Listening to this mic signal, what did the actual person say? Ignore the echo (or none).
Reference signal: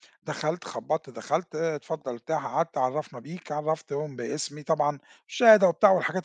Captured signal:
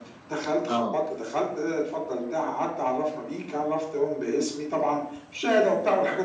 آه.